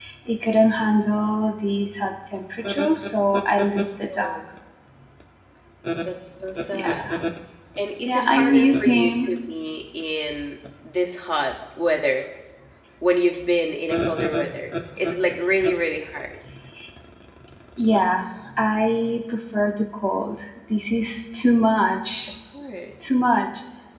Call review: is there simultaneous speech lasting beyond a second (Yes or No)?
Yes